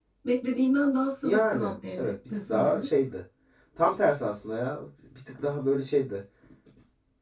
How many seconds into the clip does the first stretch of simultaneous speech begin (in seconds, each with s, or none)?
1.2 s